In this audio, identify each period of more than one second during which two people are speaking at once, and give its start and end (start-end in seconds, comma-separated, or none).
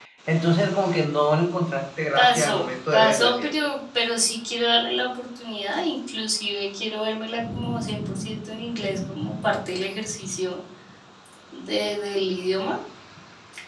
2.2-3.5